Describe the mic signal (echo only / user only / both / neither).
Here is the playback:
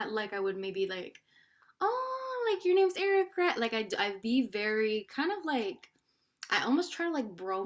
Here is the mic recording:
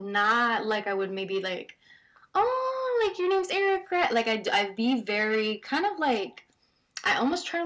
echo only